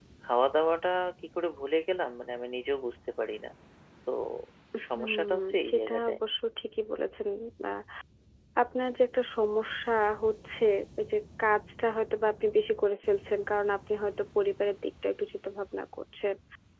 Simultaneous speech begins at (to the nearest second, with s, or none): 5 s